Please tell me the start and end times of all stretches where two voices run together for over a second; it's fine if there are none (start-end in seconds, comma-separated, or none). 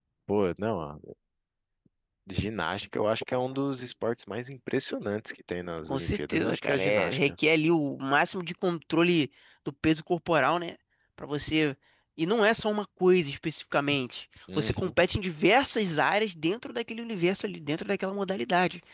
5.9-7.3